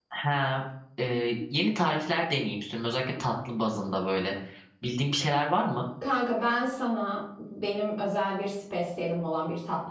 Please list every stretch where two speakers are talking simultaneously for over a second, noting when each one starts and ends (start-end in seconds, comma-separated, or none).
none